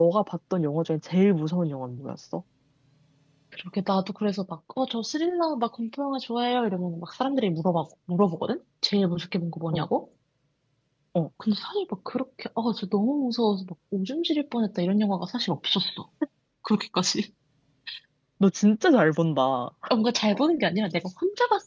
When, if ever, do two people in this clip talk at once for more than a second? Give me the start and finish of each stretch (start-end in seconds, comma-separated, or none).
none